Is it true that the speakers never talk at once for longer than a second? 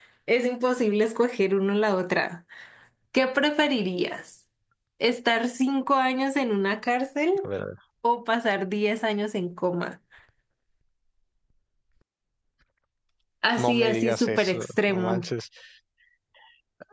No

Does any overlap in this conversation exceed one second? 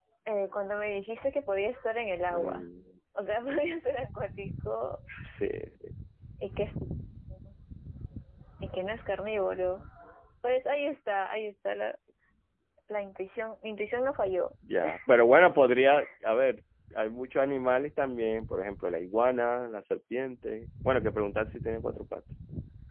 No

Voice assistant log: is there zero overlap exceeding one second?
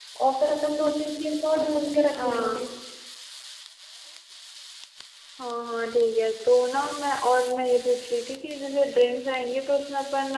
Yes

